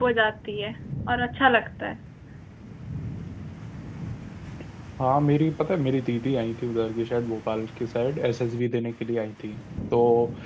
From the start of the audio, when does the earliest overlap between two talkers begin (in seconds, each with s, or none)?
none